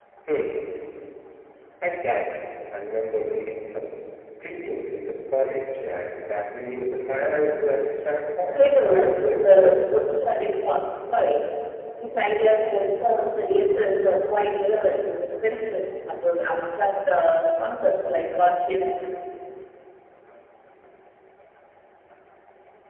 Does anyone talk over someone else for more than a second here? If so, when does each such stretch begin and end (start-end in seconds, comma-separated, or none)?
8.5-9.8